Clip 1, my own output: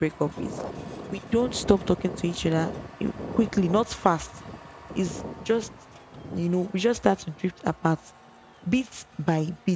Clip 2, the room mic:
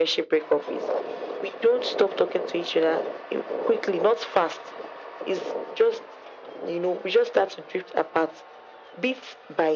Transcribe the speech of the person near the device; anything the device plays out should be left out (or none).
none